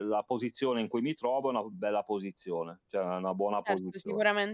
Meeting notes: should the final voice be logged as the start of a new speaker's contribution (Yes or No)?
Yes